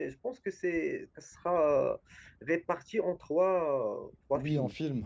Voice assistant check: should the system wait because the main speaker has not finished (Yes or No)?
No